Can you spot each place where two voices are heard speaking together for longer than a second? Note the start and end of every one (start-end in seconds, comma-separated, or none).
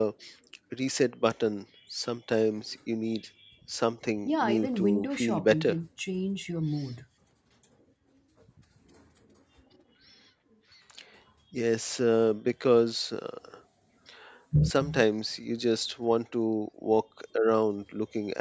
4.2-5.8